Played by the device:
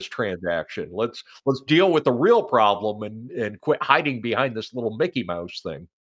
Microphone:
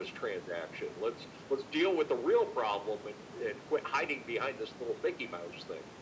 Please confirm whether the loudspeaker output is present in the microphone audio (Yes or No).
Yes